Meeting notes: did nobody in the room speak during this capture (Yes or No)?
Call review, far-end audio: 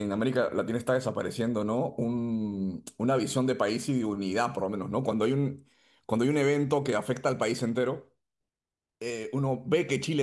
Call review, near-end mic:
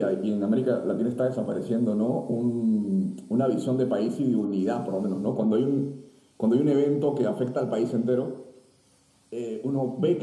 Yes